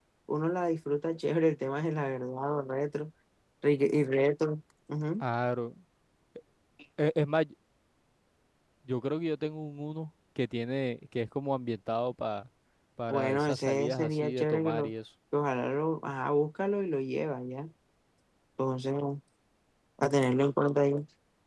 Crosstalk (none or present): present